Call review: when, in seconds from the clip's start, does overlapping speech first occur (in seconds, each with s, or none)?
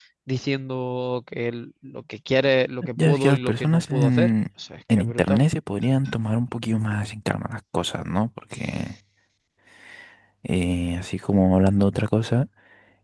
3.0 s